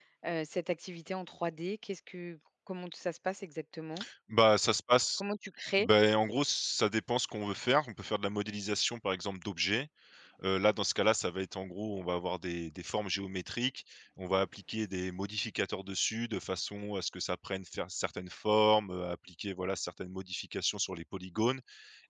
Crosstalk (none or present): none